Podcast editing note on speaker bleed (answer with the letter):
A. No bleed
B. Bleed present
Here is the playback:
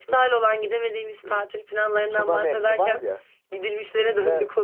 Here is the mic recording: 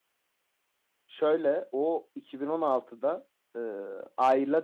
A